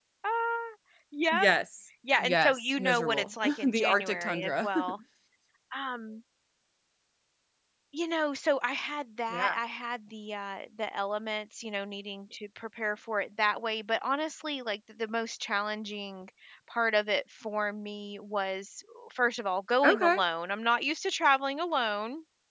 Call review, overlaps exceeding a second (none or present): present